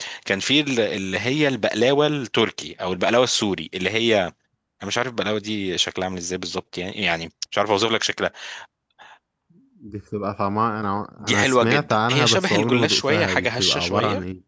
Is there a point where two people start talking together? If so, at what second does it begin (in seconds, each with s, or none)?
11.2 s